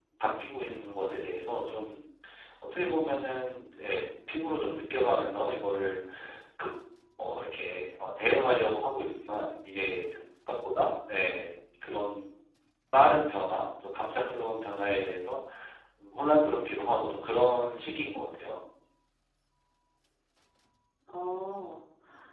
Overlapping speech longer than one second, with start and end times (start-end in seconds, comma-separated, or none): none